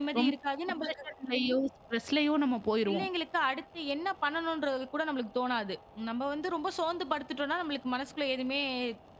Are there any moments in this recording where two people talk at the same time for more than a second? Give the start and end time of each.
none

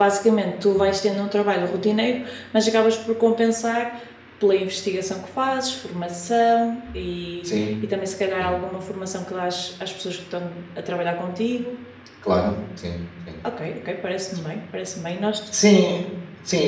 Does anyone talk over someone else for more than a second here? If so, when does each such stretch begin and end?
none

